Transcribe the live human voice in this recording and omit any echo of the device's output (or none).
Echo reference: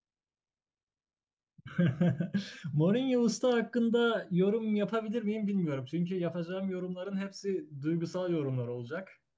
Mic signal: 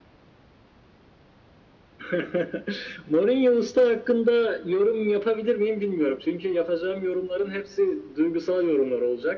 none